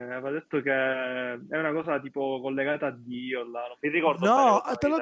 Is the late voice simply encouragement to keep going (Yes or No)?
No